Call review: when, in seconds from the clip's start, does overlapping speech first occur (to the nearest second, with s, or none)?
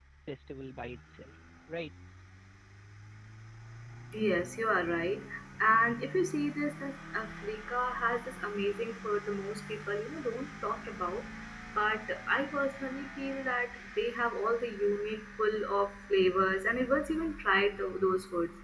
none